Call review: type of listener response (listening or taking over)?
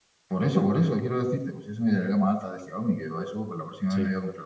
listening